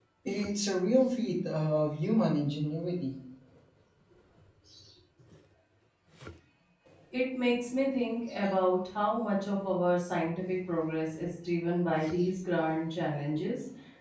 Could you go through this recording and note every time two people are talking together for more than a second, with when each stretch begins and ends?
none

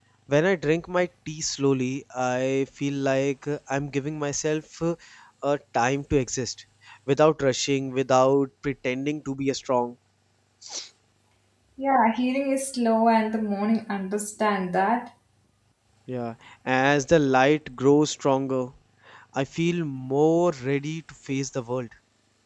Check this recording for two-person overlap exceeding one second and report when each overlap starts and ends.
none

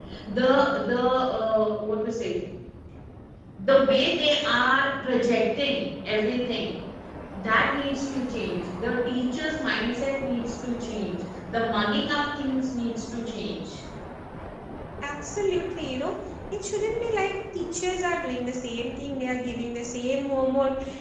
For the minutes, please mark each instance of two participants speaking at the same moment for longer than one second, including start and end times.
none

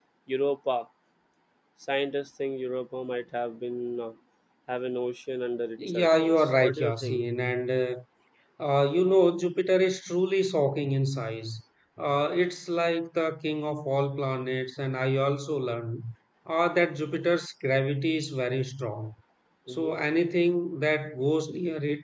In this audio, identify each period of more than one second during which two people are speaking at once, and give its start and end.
5.9-7.2

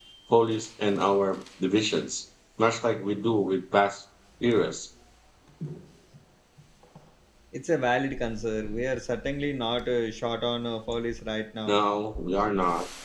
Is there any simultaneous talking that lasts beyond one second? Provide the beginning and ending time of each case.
none

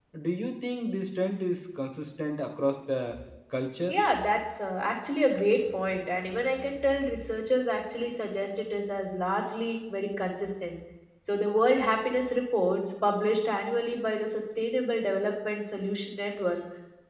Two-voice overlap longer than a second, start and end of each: none

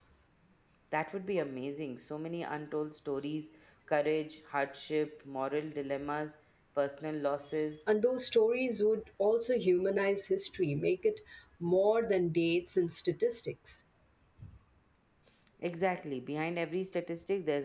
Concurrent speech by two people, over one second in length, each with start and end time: none

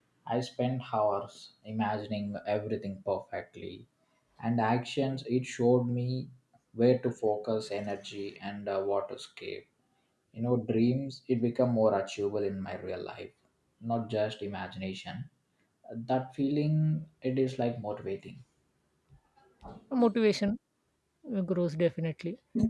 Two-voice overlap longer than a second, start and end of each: none

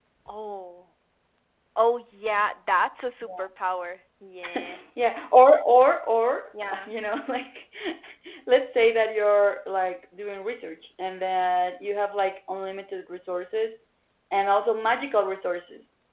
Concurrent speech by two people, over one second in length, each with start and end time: none

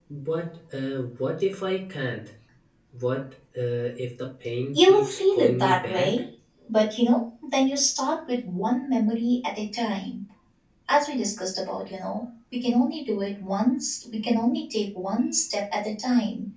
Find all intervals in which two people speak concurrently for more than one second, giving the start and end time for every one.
4.7-6.2

